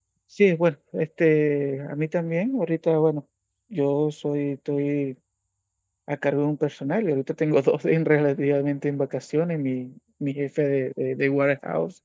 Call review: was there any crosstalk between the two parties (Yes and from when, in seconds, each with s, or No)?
No